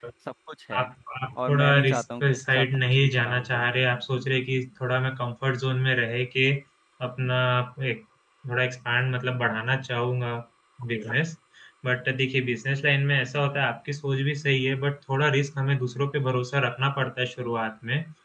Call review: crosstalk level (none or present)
present